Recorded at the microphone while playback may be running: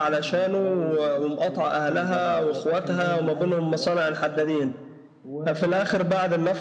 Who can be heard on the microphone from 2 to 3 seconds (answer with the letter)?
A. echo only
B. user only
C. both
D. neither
C